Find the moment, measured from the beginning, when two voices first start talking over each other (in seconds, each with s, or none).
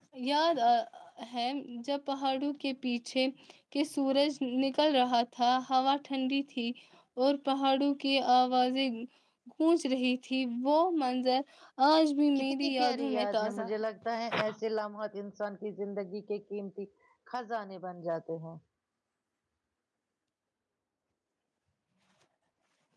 12.4 s